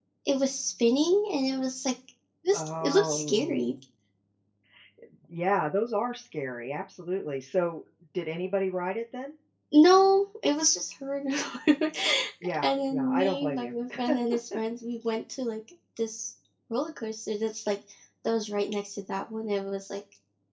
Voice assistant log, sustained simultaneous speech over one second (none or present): present